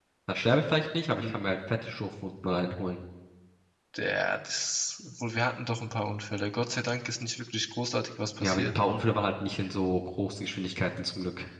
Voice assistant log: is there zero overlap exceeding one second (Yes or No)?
Yes